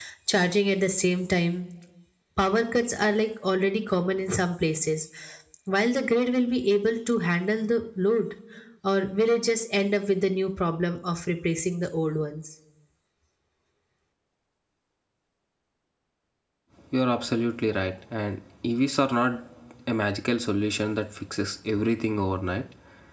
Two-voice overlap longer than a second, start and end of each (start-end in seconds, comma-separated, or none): none